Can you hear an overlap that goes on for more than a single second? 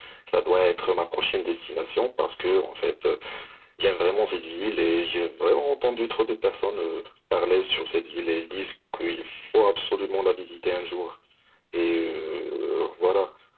No

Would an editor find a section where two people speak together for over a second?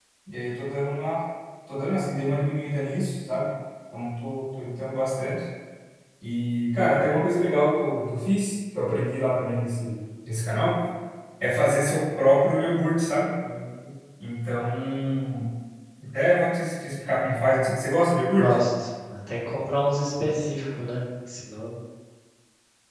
No

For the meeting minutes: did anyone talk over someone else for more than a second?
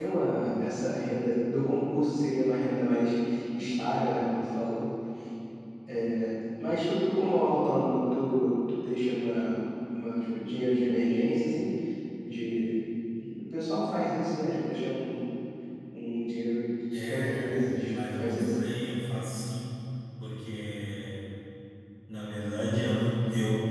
Yes, from 16.9 s

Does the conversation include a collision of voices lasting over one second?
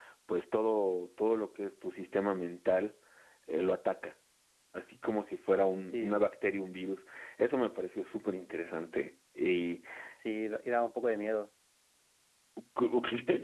No

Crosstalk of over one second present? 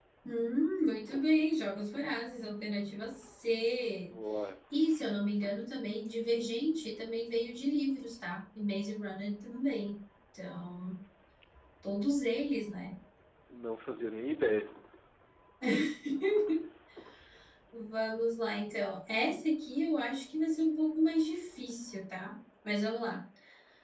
No

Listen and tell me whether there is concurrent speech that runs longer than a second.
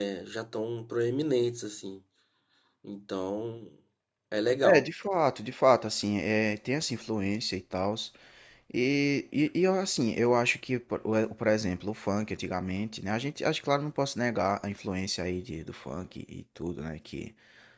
No

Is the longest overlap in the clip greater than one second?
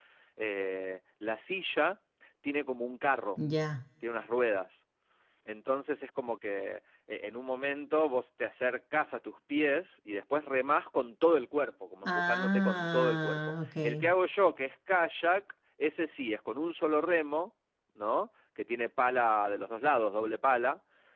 Yes, from 12.0 s

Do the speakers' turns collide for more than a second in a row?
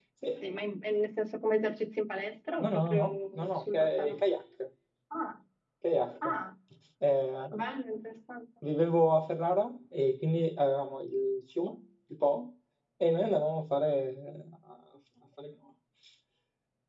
Yes, from 2.6 s

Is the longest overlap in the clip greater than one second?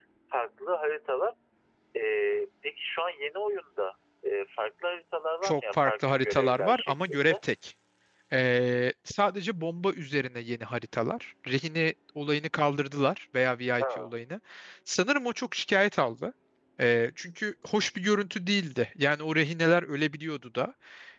Yes, from 5.4 s

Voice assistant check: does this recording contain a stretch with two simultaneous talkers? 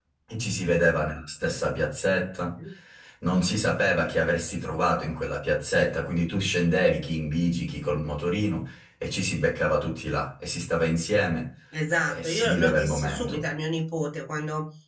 Yes, from 12.0 s

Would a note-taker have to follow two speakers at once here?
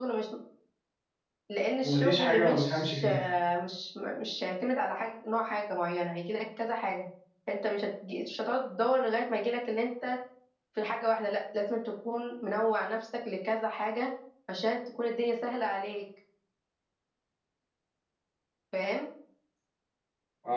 Yes, from 1.8 s

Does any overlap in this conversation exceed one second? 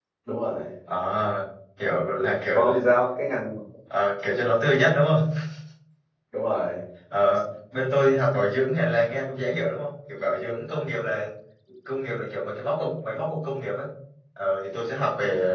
No

